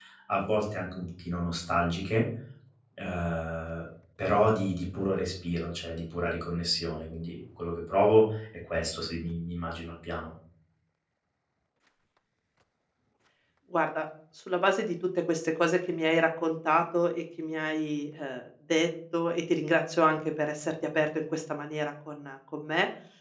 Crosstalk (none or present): none